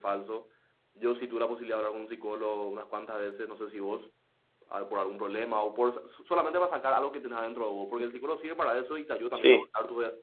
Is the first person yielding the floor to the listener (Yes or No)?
No